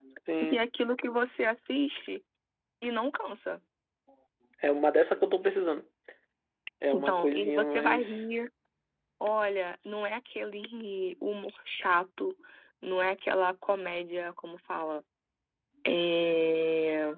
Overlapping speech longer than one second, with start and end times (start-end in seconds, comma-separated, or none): 6.9-8.2